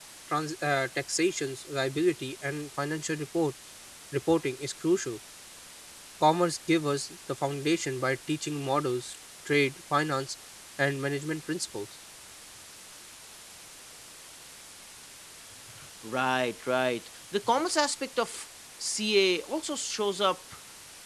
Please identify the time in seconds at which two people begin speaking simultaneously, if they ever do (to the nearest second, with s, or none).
none